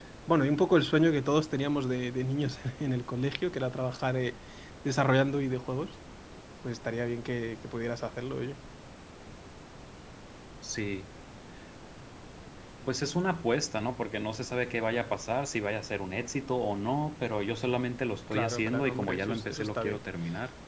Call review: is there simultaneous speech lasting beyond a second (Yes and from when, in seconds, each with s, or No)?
Yes, from 18.3 s